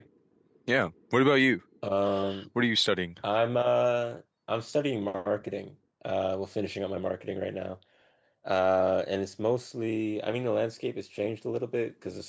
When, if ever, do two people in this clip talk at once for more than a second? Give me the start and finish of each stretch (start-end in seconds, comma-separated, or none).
none